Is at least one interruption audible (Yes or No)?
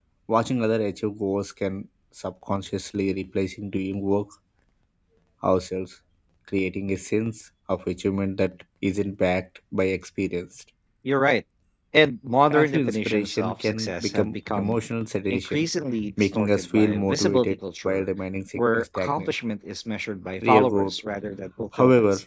Yes